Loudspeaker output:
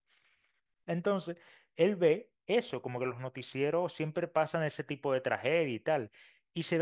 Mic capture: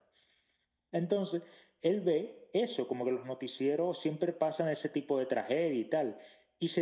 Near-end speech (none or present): none